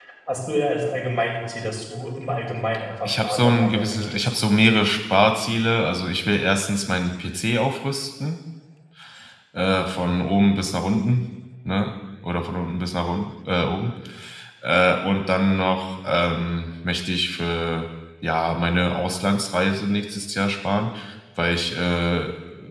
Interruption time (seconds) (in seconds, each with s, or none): 3.0 s